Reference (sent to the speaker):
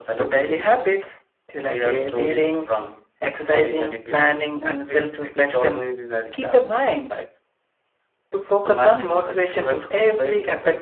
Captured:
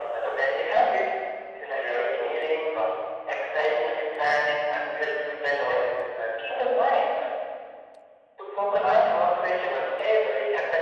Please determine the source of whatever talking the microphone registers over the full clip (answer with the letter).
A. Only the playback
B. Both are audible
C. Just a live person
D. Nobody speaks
A